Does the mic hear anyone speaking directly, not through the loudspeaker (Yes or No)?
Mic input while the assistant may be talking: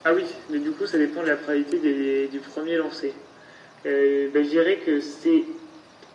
No